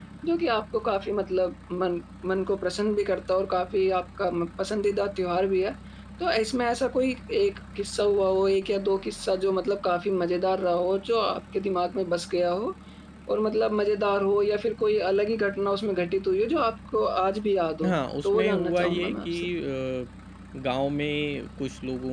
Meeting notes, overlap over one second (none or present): present